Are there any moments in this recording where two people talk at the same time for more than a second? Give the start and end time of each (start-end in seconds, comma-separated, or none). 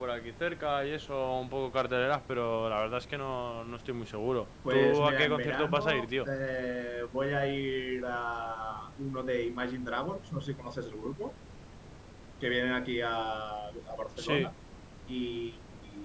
4.7-6.3